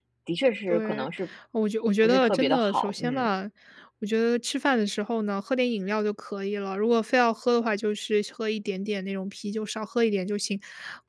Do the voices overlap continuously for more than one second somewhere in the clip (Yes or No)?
Yes